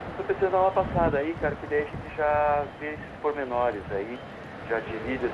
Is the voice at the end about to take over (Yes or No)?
Yes